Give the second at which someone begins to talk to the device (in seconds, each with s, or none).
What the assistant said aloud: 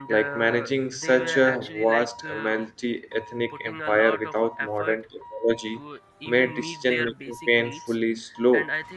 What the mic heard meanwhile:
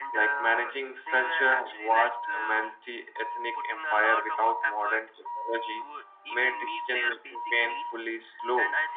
none